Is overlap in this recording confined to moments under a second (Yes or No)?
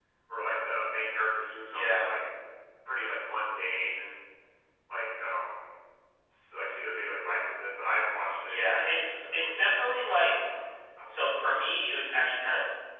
No